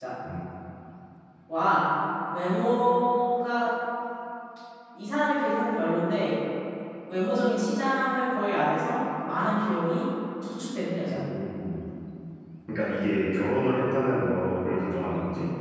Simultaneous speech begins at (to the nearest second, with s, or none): none